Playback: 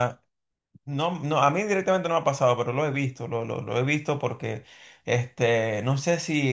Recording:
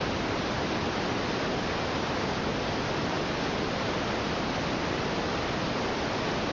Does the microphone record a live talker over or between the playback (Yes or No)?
No